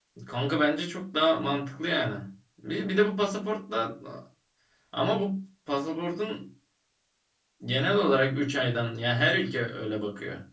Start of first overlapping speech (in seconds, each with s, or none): none